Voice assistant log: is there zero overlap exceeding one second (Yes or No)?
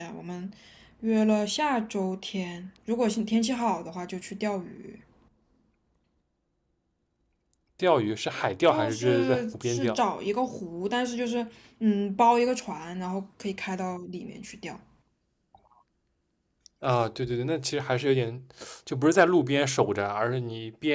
No